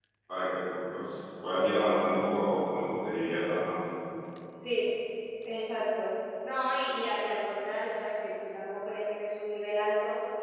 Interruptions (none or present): none